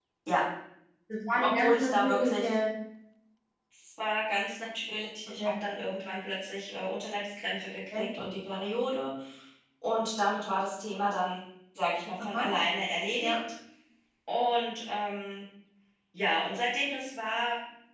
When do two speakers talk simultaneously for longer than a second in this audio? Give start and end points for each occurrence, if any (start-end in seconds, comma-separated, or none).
1.3-2.6